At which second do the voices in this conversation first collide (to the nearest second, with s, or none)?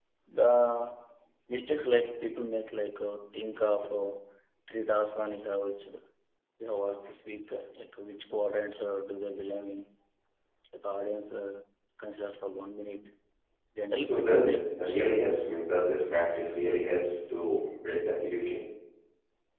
14 s